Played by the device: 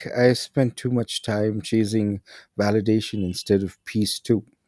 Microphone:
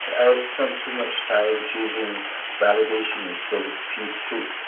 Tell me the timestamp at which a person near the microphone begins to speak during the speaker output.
none

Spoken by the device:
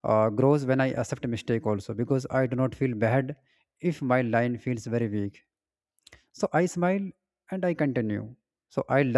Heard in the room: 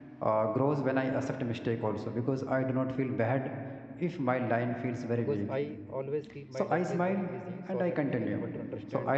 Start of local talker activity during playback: 5.2 s

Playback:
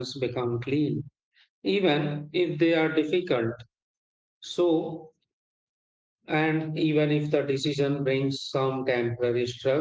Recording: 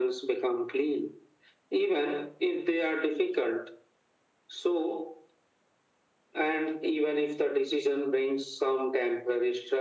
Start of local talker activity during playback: none

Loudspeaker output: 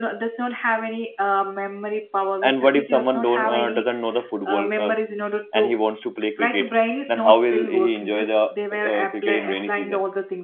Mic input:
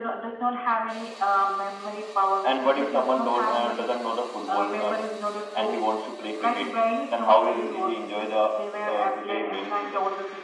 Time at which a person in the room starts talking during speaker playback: none

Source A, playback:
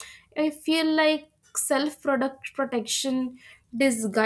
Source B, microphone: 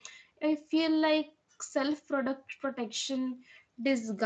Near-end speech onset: none

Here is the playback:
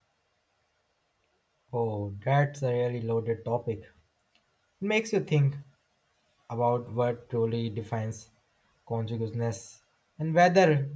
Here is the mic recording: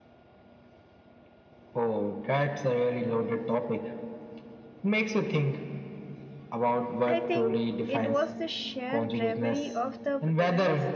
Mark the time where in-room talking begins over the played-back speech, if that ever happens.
7.0 s

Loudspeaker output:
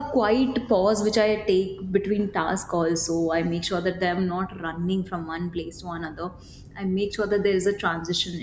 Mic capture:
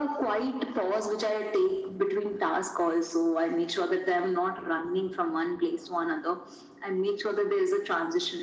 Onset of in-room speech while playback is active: none

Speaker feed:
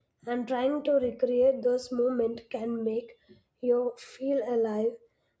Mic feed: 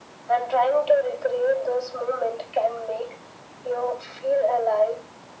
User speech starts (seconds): none

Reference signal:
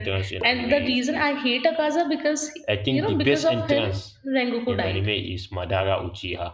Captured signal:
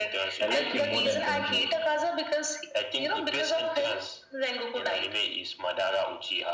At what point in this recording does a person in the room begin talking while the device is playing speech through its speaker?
0.4 s

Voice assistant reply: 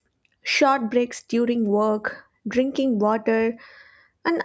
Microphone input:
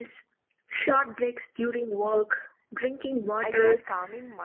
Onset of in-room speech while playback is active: 3.4 s

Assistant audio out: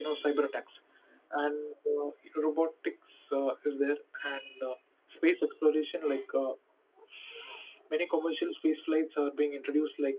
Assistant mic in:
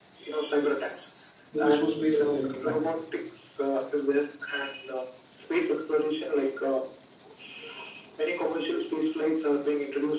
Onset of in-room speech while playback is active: 1.5 s

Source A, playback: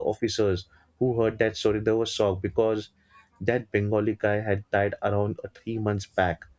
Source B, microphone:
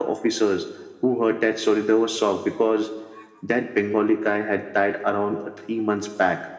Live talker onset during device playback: none

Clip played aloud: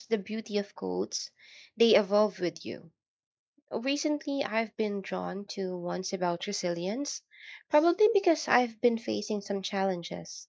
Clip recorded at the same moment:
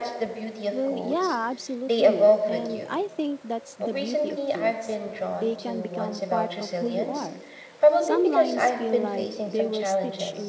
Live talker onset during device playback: 0.7 s

